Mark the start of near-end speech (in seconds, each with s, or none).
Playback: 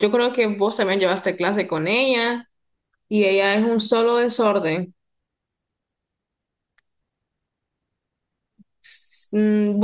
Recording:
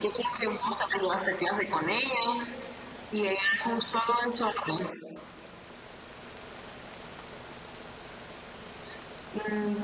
none